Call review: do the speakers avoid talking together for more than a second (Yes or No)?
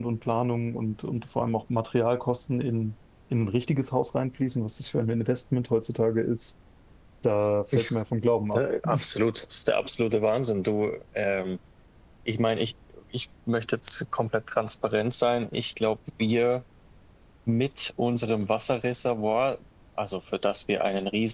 Yes